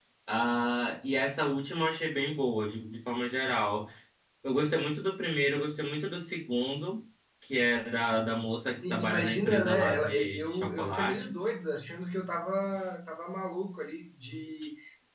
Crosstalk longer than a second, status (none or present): present